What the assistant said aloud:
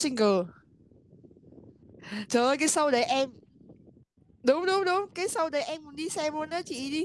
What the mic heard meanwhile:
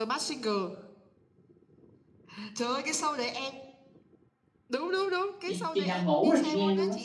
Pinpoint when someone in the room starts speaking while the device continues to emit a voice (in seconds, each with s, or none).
5.5 s